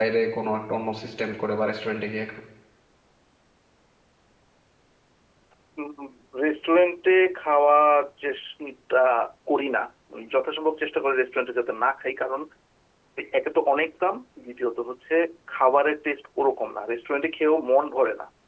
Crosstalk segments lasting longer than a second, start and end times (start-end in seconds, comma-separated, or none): none